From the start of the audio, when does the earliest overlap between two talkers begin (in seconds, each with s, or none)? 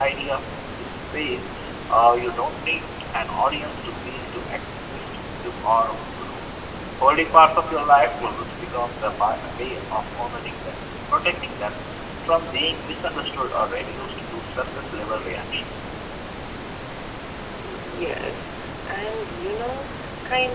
none